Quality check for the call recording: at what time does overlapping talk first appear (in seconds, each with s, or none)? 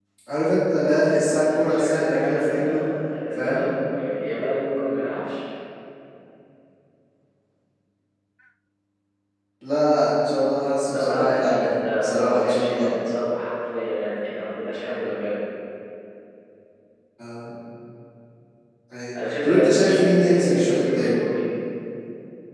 1.6 s